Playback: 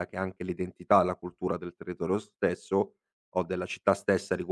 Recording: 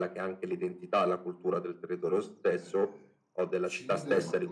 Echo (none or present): present